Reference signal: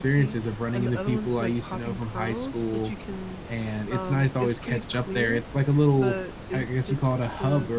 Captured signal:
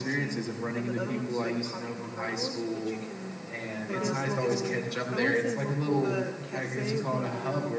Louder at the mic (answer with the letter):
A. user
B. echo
B